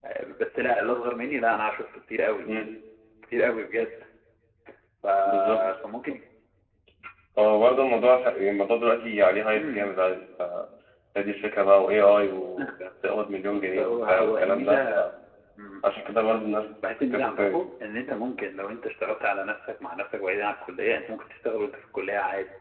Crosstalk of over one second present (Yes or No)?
Yes